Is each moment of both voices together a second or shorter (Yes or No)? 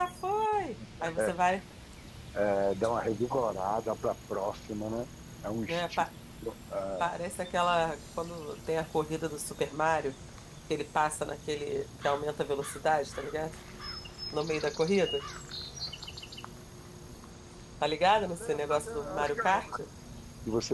No